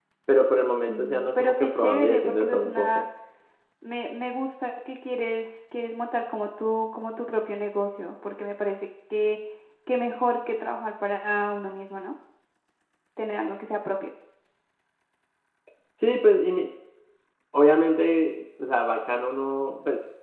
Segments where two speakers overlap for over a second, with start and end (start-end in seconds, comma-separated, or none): 0.9-3.0